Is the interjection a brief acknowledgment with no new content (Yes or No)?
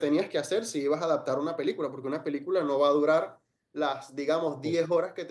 Yes